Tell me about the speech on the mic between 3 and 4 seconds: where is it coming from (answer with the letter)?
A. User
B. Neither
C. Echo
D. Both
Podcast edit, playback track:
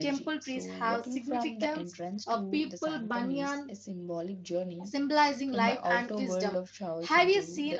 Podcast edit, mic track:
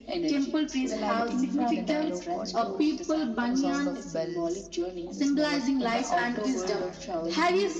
D